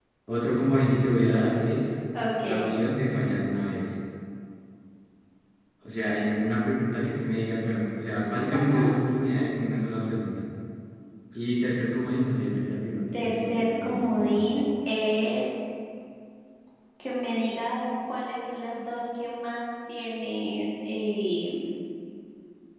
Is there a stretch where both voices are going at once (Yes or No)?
Yes